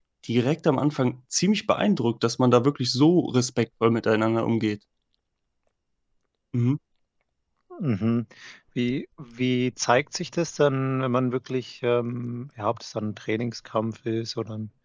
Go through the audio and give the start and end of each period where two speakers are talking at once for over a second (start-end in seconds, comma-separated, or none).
none